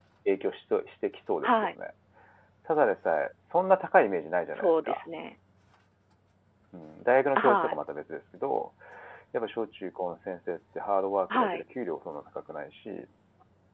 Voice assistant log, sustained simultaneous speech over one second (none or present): none